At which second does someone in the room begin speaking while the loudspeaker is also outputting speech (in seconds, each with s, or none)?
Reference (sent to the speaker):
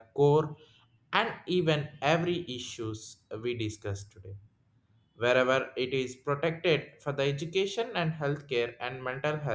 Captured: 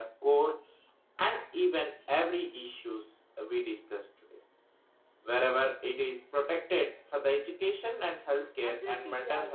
8.6 s